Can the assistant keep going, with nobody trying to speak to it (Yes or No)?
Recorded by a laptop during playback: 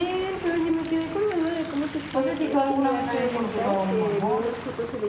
No